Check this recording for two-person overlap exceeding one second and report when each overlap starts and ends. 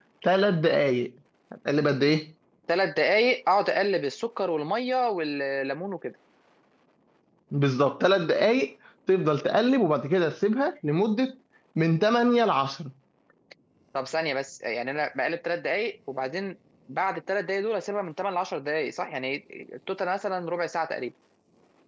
none

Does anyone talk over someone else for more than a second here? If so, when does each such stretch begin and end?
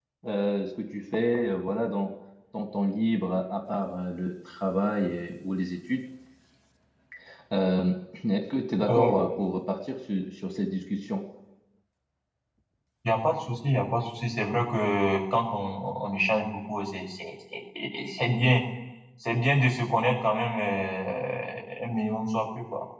none

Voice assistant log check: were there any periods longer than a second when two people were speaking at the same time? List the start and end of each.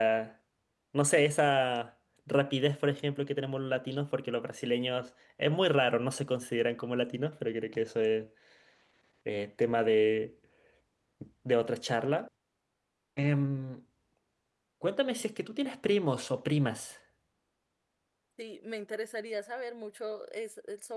none

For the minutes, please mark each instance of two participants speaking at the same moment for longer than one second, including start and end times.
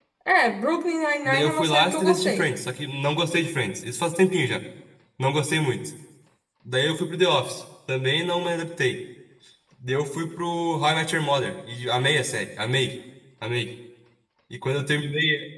1.2-2.5

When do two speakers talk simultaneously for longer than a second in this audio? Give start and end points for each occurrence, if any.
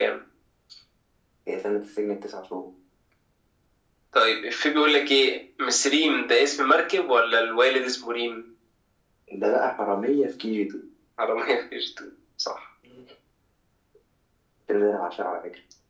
none

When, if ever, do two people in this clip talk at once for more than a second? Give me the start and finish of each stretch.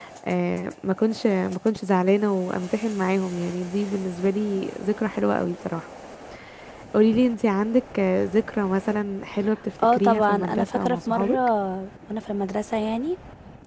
9.9-11.4

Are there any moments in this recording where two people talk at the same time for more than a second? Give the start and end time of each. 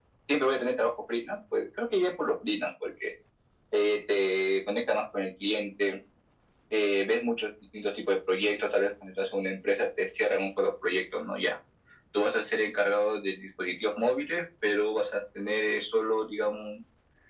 none

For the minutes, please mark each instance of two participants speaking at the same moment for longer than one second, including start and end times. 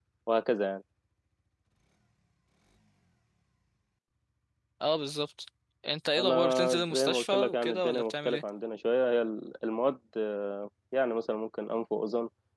6.2-8.4

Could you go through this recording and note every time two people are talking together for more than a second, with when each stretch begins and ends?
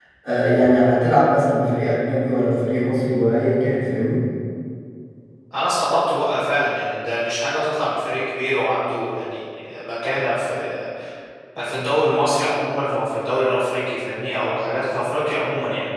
none

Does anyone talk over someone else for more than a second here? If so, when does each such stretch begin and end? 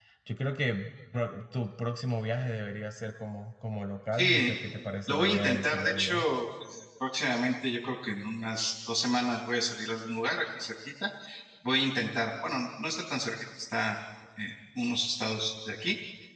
5.1-6.3

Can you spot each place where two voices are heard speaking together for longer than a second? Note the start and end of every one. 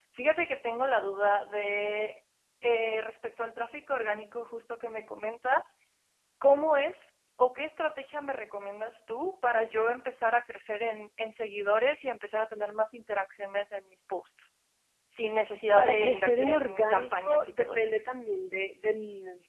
15.8-17.9

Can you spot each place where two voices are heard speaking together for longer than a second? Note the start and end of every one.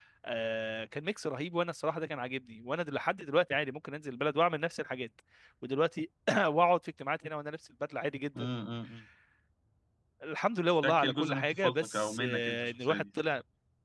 10.8-13.0

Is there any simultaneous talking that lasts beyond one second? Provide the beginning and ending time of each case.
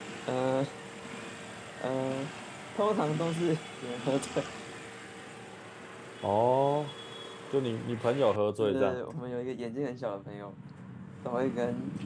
none

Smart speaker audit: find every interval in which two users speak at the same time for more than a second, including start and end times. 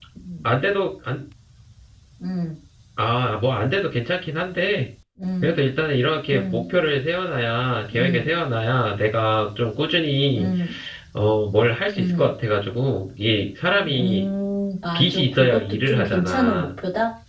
14.9-16.7

